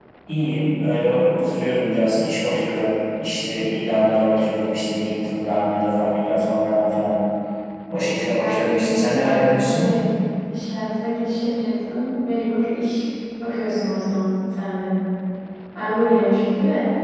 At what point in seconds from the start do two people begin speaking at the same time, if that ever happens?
8.4 s

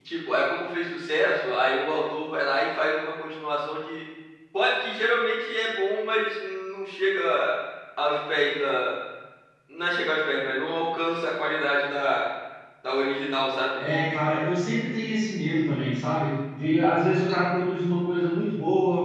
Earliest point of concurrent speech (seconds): none

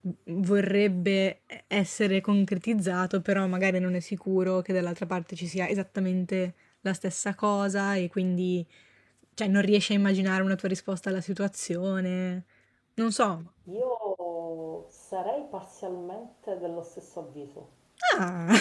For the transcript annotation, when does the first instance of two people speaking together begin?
none

